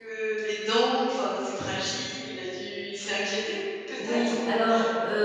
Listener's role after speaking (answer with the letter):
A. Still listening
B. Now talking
B